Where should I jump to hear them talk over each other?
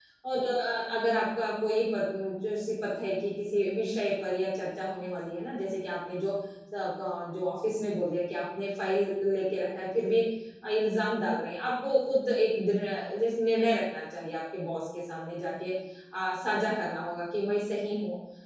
none

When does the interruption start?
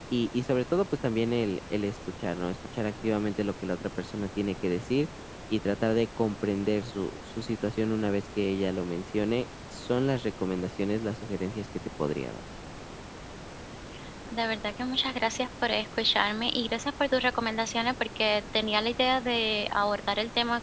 none

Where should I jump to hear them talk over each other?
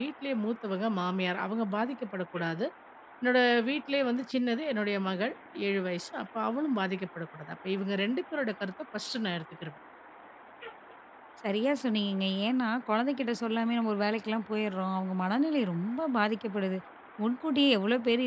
none

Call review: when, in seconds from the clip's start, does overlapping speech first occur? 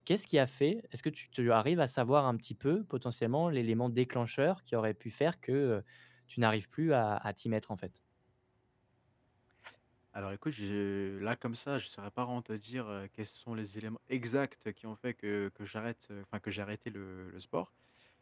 none

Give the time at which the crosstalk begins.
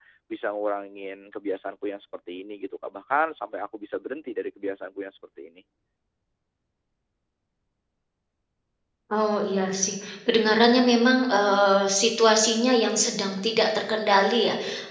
none

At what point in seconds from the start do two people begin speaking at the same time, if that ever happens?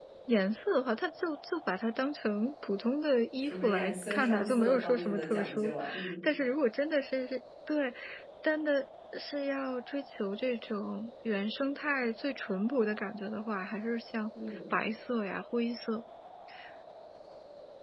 3.4 s

